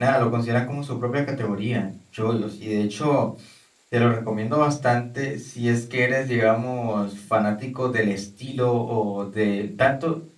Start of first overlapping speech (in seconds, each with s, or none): none